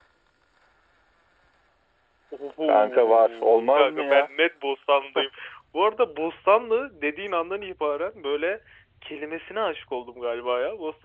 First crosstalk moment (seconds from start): 2.6 s

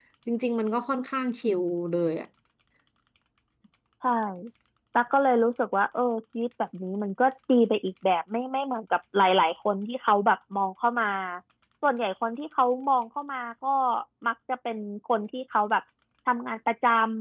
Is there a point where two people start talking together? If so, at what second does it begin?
none

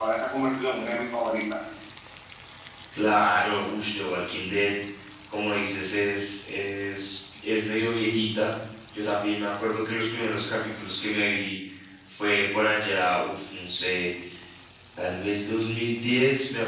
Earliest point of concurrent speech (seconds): none

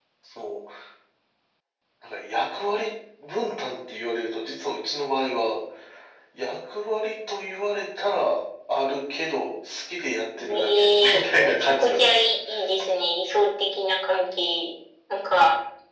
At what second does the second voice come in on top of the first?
10.4 s

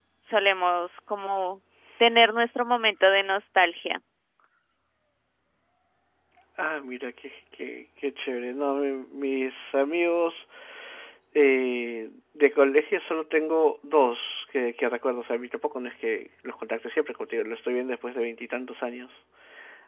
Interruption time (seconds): none

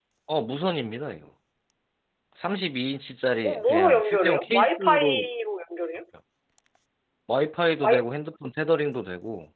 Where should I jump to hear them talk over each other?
3.4 s

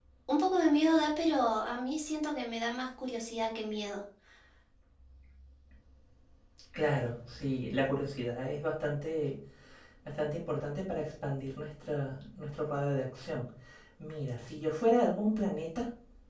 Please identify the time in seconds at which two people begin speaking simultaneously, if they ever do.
none

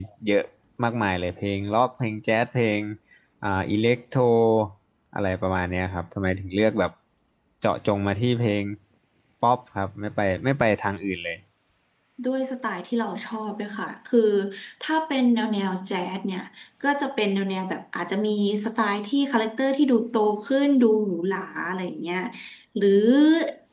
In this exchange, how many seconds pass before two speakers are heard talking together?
none

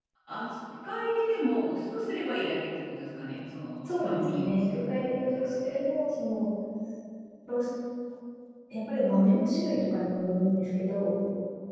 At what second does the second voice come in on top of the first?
3.9 s

